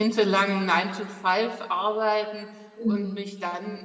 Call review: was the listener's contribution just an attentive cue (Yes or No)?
Yes